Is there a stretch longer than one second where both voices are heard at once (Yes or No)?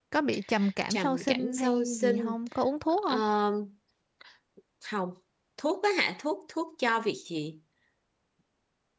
Yes